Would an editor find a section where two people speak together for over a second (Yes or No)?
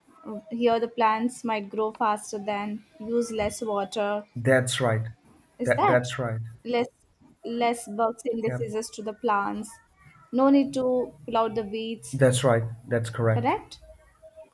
No